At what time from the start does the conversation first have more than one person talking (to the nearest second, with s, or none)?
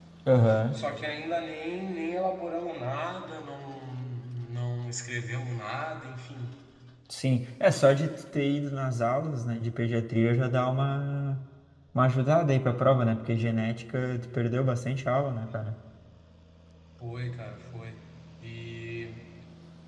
none